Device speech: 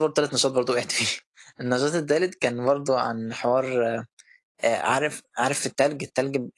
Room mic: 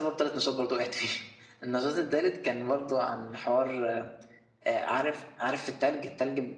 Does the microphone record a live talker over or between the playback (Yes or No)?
No